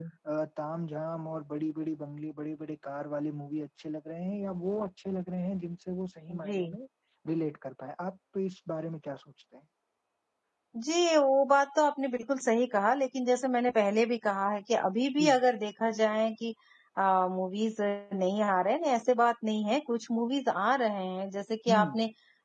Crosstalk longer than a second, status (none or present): none